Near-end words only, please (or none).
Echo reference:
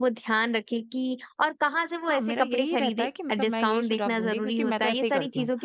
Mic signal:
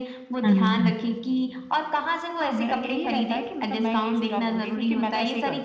हुँ, हुँ, हुँ।